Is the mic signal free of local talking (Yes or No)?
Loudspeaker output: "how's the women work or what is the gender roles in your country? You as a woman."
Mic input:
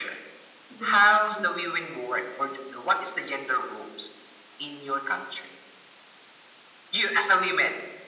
No